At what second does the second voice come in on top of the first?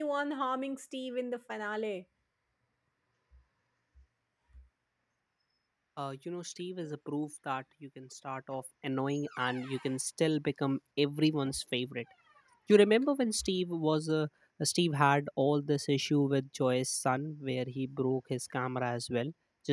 none

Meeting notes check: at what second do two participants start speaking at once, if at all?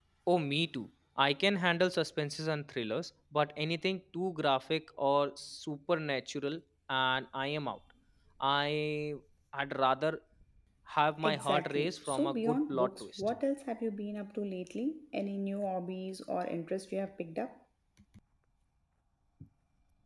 11.2 s

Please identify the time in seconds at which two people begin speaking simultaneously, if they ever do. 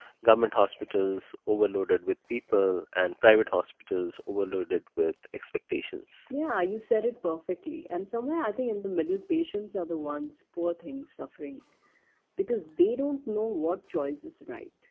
none

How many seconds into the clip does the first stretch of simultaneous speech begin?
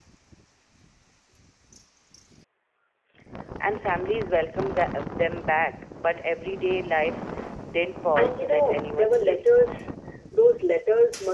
8.2 s

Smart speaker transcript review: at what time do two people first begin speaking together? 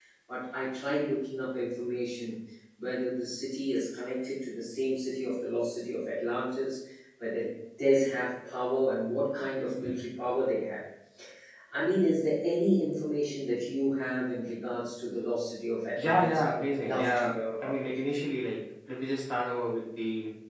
16.0 s

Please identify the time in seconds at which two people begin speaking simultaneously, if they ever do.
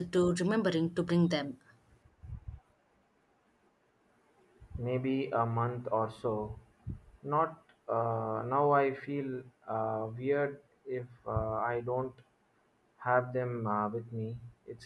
none

